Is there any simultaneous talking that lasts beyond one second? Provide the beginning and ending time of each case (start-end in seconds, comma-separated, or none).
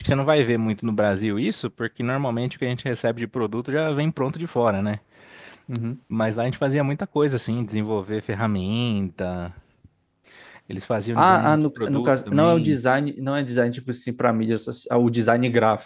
11.2-12.8